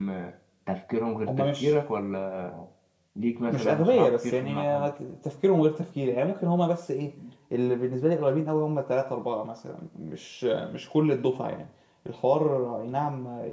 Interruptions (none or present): present